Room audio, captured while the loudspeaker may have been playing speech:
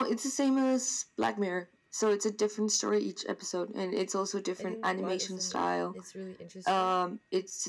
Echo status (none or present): present